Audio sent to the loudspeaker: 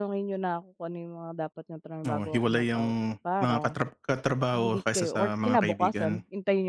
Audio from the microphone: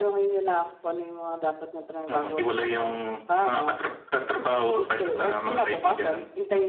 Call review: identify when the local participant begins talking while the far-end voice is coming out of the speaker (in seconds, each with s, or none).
none